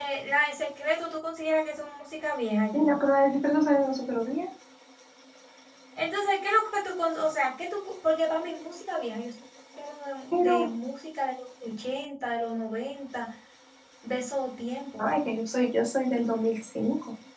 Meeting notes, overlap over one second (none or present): none